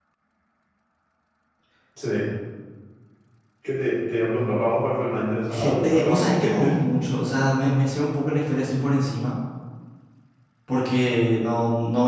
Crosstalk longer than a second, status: present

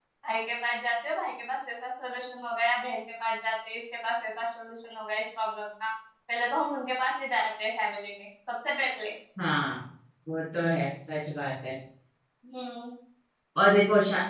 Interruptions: none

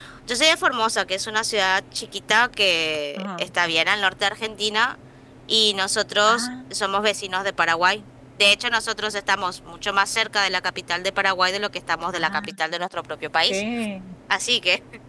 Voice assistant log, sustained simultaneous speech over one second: none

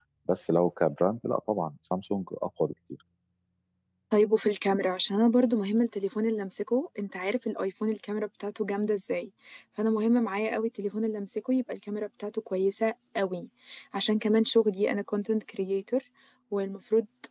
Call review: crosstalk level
none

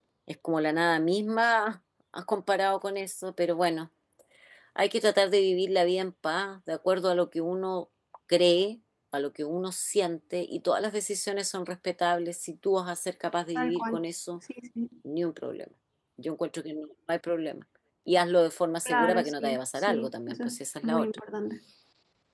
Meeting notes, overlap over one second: present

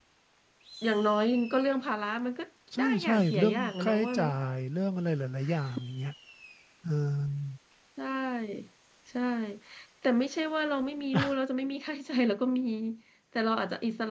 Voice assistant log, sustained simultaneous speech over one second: present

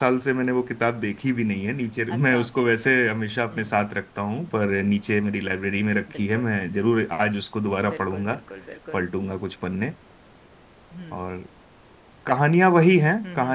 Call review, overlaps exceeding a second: none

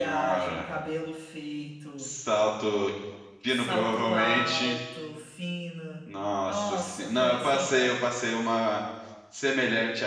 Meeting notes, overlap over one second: present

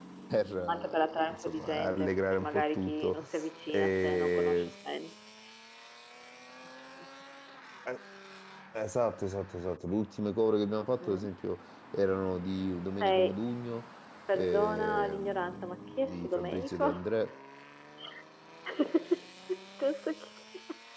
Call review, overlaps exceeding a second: present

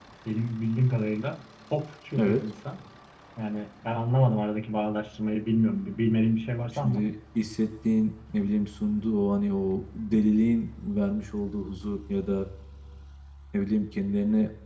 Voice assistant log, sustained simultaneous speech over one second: none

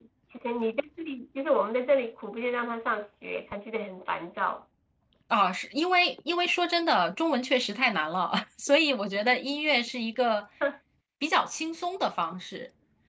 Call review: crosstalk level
none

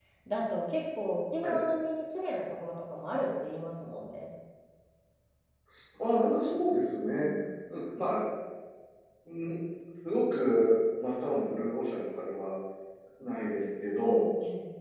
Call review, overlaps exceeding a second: none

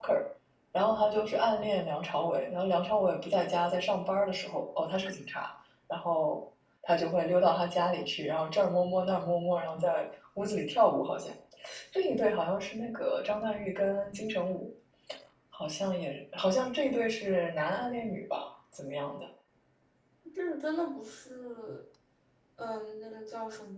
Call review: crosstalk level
none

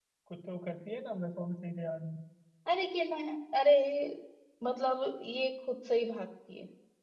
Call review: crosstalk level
none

